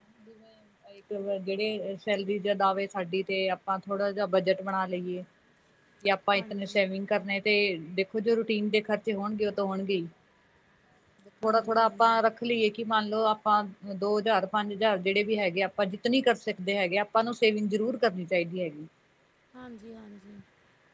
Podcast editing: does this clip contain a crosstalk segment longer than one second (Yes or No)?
No